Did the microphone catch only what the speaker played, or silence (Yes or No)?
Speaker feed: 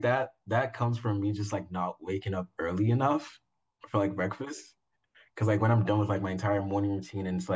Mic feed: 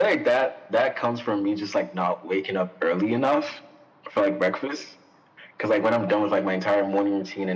Yes